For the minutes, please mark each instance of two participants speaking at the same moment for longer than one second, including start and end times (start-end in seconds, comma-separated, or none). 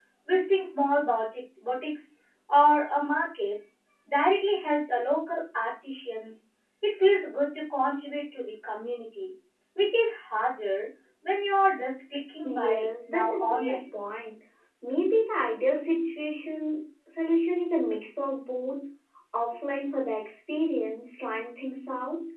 12.4-13.8